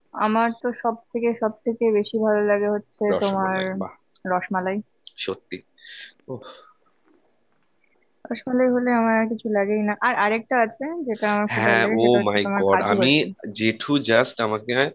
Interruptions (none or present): present